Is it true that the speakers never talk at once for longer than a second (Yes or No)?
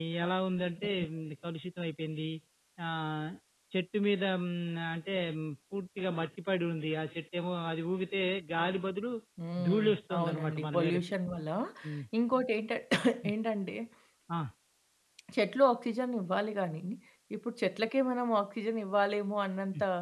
No